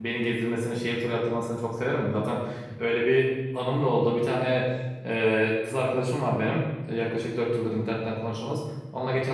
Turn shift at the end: No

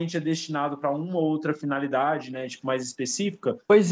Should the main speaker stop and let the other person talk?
Yes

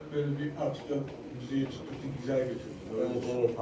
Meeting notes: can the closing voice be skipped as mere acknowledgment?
No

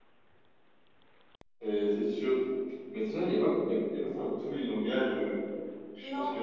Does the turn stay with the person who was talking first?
No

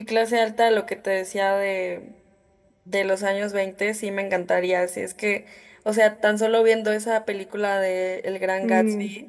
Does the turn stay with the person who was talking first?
Yes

